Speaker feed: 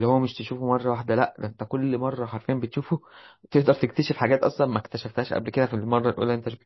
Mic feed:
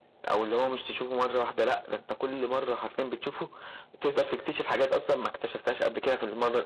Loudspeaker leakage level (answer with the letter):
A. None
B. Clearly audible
B